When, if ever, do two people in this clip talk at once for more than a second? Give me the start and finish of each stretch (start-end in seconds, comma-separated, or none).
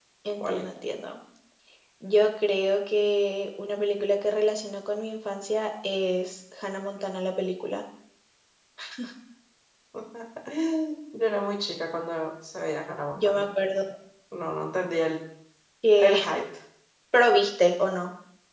none